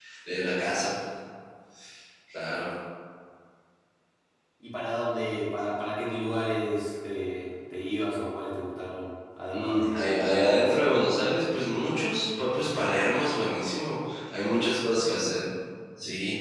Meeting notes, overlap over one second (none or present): present